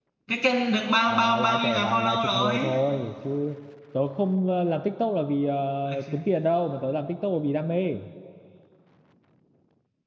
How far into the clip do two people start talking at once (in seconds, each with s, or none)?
1.1 s